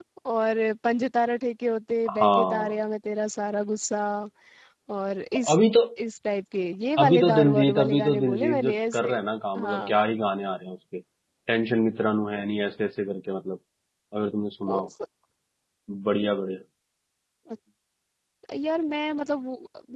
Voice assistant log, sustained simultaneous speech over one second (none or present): present